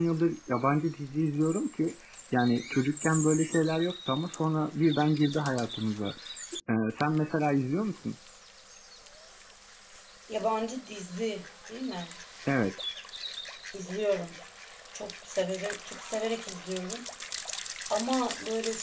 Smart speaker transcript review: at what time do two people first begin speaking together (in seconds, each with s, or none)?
none